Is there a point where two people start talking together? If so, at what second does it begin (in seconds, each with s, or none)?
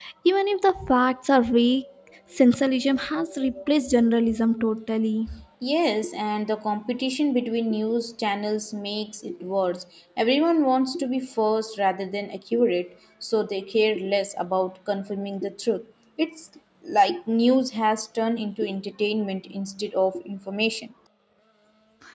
none